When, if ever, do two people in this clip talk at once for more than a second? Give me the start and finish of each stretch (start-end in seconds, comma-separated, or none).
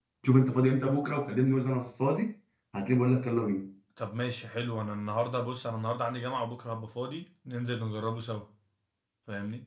none